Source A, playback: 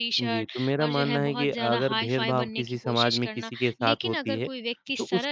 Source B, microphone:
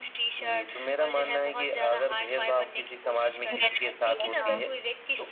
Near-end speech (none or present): present